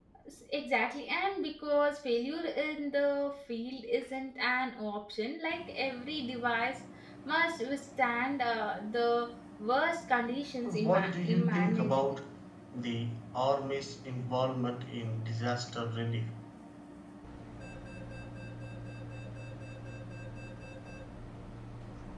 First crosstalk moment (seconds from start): 11 s

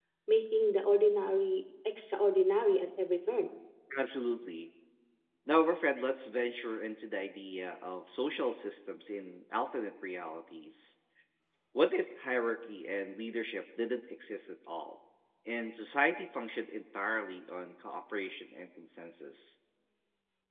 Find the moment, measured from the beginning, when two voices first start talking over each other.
none

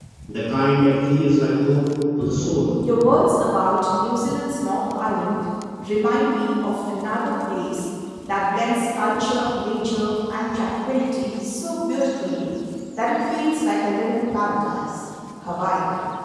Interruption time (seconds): none

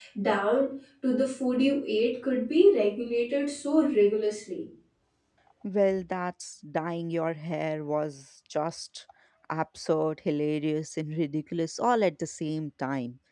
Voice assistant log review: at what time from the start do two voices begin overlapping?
none

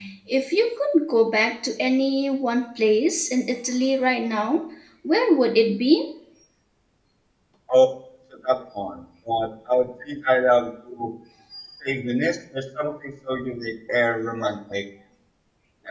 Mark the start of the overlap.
none

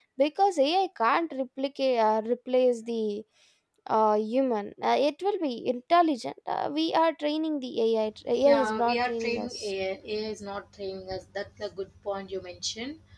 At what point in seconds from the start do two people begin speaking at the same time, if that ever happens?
8 s

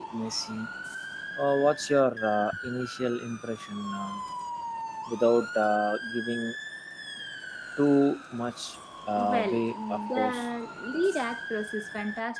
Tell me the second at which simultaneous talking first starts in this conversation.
9 s

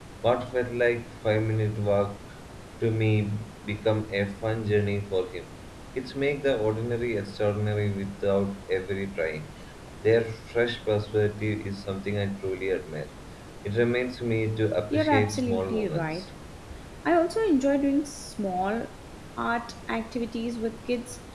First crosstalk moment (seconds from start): 15 s

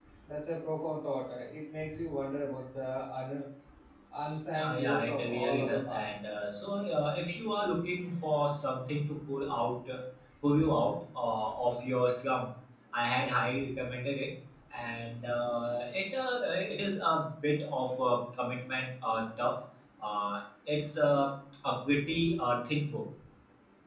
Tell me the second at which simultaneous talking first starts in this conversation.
5 s

